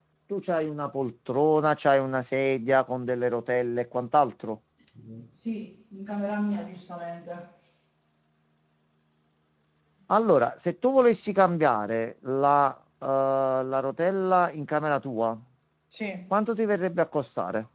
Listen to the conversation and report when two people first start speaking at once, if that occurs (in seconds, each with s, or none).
none